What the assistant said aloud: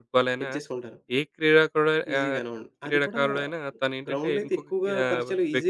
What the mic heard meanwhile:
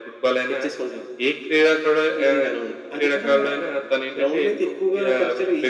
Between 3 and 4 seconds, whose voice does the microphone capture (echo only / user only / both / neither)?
echo only